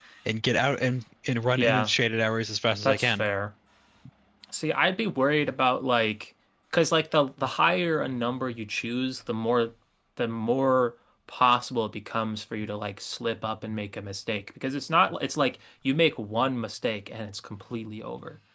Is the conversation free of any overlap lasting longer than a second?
Yes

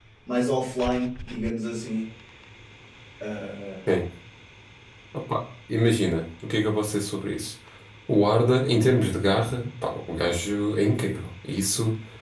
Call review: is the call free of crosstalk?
Yes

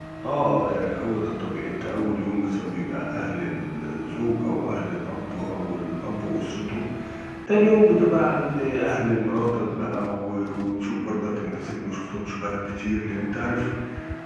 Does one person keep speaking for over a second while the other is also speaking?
No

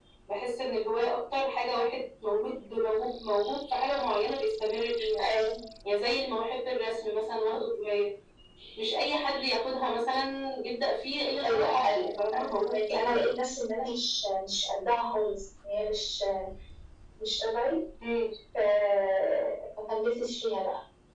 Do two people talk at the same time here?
Yes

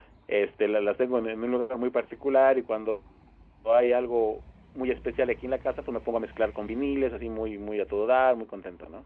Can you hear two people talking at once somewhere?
No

